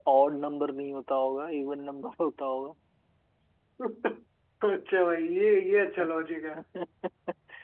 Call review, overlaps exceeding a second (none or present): none